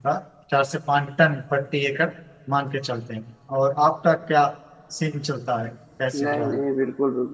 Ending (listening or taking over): taking over